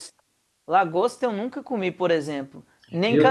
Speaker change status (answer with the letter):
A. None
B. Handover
A